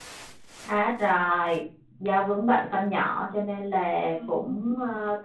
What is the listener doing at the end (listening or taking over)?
listening